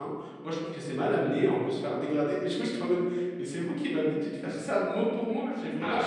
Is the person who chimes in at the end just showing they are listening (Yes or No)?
Yes